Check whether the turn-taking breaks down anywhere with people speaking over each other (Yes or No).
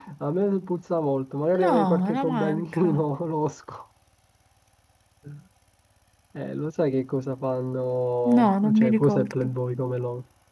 Yes